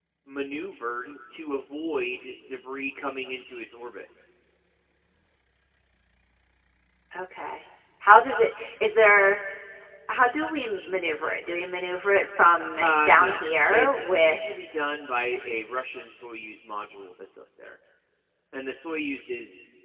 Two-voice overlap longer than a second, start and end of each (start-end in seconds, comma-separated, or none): 12.8-14.4